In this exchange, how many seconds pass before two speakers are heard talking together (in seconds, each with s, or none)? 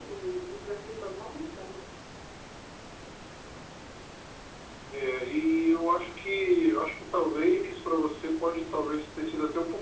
none